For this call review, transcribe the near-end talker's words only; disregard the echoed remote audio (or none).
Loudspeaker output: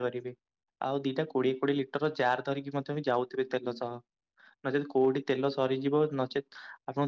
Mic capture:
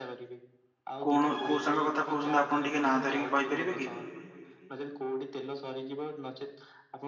କଣ କୋଉ ସାଙ୍ଗ କଥା କହୁଛନ୍ତି, ଆପଣ ଟିକେ ନାଁ ଧରିକି କହିପାରିବେ କି?